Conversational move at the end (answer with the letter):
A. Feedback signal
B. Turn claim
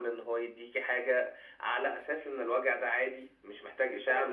B